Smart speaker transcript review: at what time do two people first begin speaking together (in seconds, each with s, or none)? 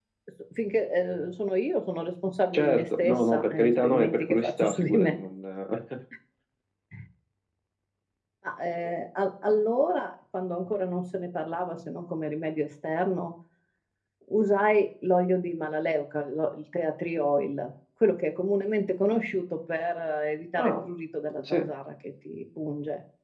2.5 s